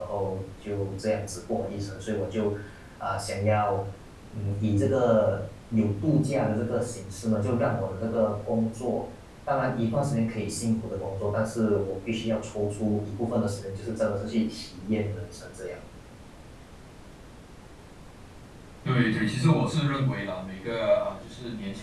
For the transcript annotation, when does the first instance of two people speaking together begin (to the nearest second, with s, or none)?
none